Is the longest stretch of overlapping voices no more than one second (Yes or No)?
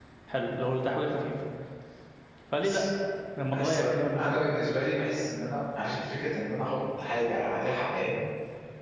Yes